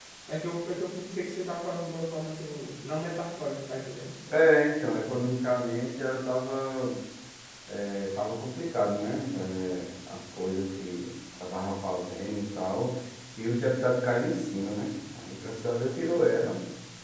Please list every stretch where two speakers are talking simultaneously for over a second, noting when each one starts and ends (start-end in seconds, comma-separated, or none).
none